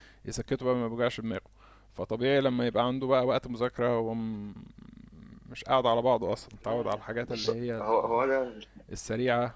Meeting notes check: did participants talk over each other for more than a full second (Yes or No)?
Yes